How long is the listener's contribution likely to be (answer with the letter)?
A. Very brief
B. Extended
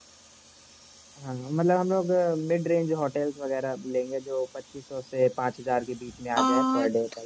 B